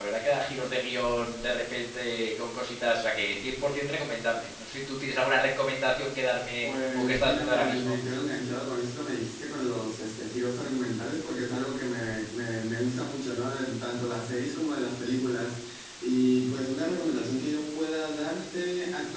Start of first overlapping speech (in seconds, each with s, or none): 6.6 s